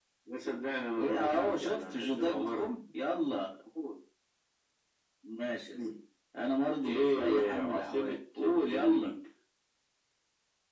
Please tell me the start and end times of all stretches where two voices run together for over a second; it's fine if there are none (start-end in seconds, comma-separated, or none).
1.0-2.7, 6.8-9.1